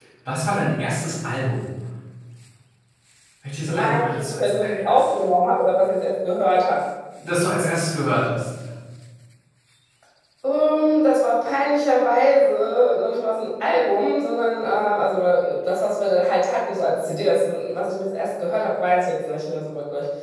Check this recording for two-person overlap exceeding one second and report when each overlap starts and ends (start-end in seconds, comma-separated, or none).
3.7-5.1